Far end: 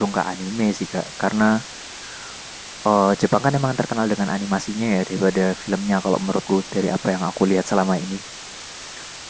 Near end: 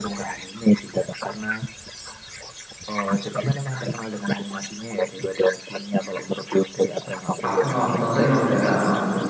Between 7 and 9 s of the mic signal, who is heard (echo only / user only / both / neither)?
both